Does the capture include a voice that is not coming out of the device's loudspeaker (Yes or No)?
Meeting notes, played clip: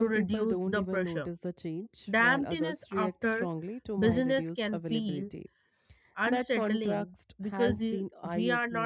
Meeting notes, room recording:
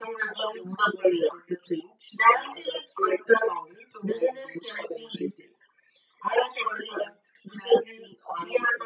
No